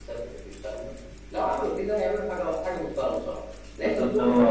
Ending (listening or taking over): taking over